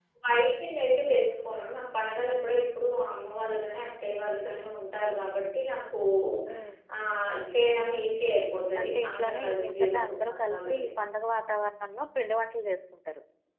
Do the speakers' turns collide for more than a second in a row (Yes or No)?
Yes